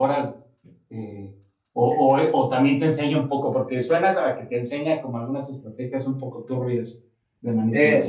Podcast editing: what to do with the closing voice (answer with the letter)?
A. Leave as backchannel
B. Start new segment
B